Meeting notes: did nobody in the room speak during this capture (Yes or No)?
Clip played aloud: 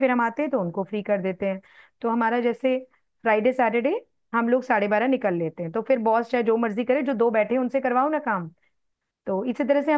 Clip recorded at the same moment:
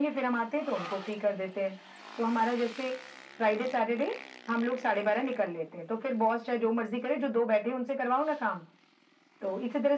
Yes